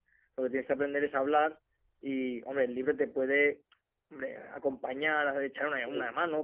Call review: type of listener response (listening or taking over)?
listening